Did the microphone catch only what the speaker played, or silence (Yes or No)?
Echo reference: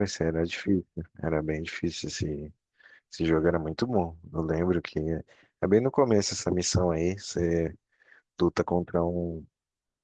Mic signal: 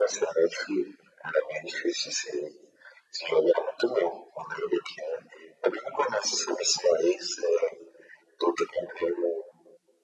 Yes